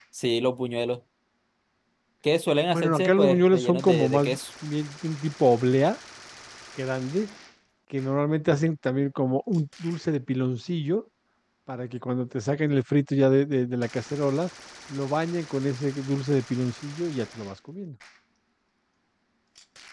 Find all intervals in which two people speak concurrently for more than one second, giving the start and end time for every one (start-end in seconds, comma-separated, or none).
2.7-4.4